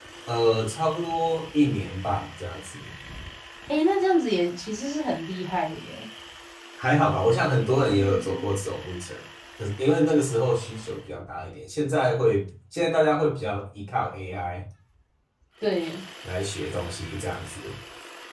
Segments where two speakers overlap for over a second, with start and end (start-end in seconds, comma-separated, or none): none